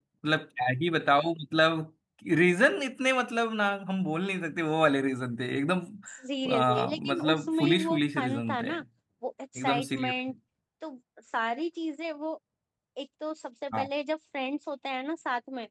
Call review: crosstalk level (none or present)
present